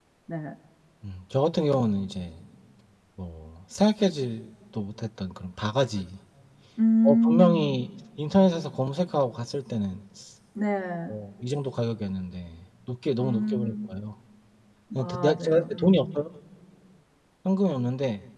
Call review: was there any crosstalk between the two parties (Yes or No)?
Yes